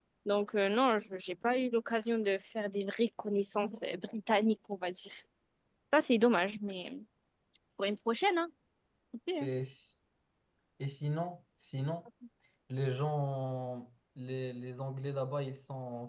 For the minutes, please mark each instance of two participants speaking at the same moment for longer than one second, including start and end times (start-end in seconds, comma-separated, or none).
none